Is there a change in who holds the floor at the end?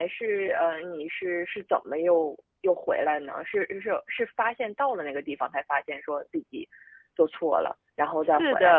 Yes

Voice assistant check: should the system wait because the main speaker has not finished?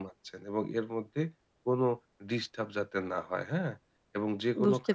Yes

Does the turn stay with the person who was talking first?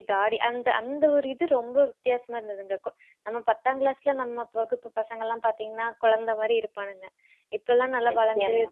Yes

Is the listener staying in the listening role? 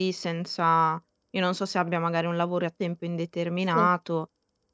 Yes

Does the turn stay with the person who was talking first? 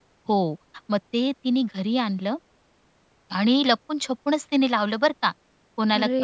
Yes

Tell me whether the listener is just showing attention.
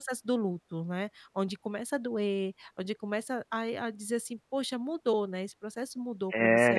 No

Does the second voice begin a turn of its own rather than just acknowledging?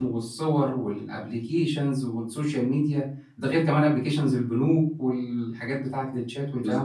Yes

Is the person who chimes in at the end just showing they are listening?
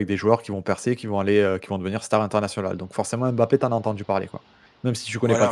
No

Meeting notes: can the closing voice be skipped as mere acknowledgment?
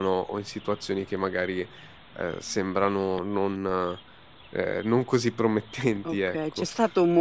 No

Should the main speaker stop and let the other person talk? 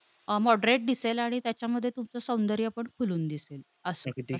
Yes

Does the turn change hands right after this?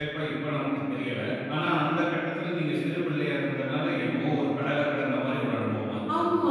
Yes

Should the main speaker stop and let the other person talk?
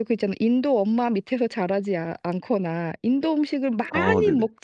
No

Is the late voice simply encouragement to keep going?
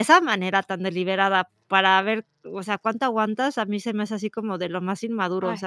No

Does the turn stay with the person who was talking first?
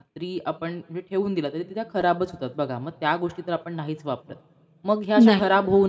Yes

